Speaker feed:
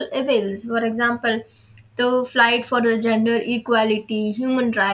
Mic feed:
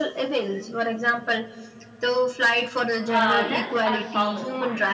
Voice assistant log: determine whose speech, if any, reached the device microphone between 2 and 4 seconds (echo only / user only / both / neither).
both